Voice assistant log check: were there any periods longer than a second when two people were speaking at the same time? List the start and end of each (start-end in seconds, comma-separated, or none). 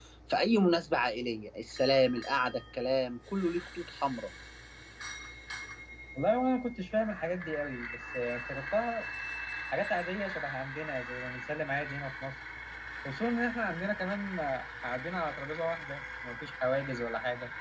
none